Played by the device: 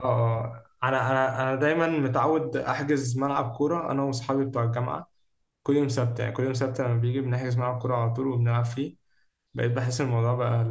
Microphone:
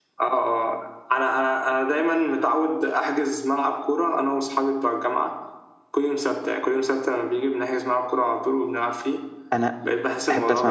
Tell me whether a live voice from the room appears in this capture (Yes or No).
Yes